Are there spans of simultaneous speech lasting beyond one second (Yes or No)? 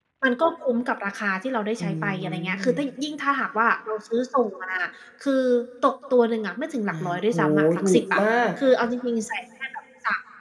Yes